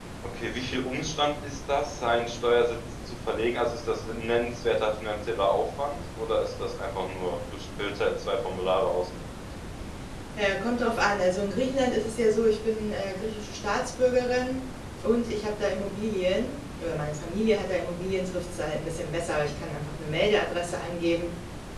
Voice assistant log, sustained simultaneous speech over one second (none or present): none